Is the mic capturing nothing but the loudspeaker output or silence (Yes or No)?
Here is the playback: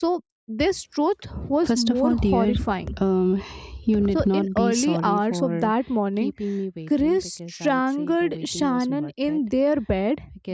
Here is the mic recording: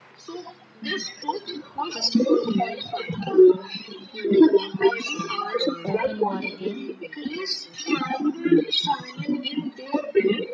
No